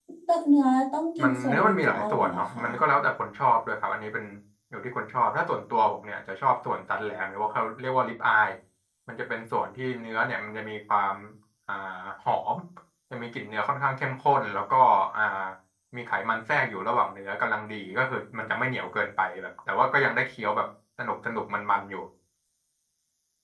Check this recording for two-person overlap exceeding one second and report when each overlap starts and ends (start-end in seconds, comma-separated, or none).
1.2-2.6